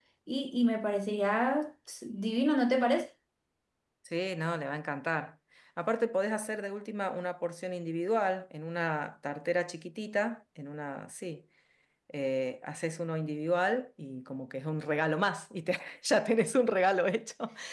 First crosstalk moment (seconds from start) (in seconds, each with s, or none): none